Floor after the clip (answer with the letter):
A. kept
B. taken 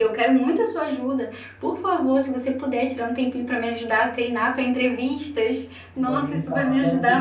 B